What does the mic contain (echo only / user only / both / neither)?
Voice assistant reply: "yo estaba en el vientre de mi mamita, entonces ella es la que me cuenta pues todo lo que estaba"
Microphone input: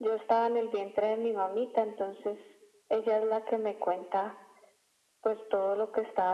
echo only